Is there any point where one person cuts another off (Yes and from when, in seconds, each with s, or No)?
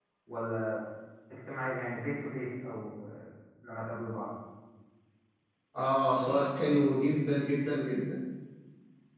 No